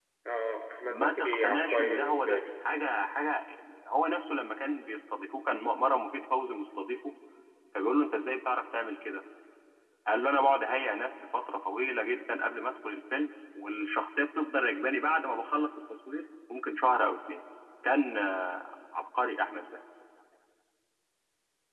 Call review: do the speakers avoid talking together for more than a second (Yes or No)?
No